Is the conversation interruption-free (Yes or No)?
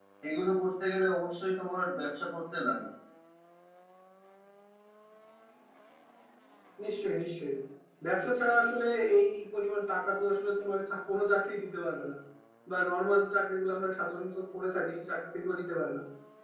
Yes